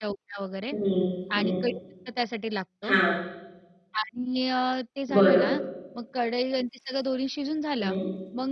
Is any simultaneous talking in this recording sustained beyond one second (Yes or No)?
No